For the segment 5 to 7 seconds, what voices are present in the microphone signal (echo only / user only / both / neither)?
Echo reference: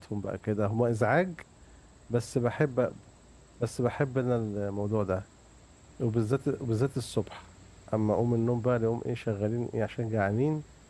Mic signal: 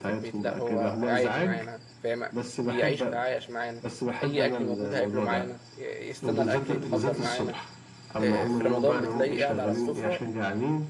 both